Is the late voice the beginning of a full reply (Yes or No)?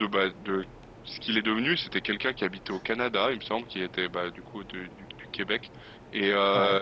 No